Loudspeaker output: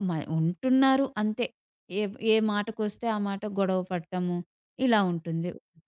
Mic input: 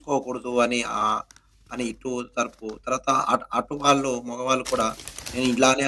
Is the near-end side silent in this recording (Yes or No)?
No